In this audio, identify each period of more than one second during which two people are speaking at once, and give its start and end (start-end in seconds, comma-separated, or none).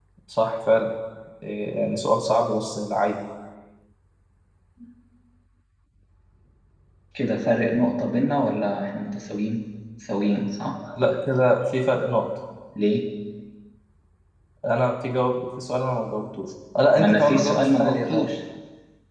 17.0-18.2